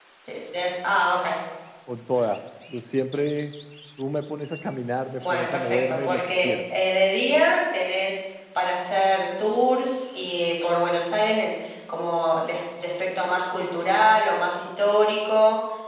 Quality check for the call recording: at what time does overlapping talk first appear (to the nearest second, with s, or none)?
5 s